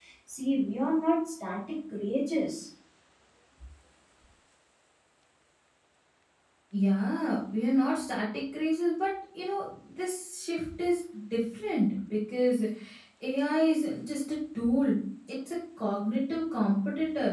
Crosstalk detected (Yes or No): No